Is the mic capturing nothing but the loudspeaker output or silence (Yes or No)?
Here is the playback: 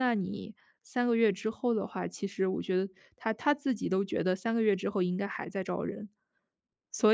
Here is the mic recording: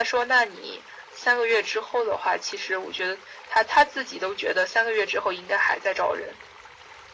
Yes